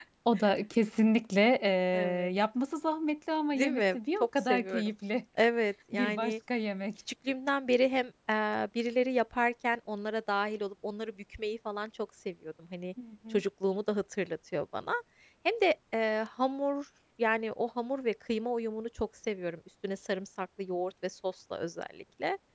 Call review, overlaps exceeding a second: present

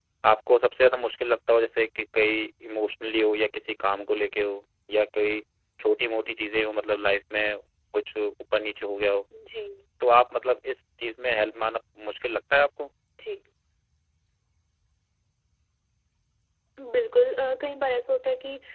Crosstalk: none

